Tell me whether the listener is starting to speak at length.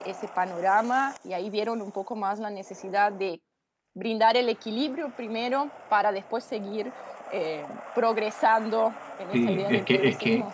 Yes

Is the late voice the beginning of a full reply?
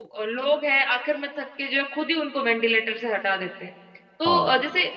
No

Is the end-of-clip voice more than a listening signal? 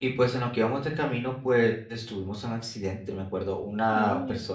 No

